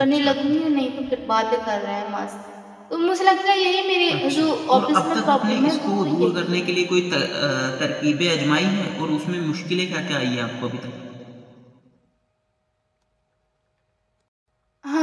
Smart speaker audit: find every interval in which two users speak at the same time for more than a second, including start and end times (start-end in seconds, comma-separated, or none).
4.2-6.5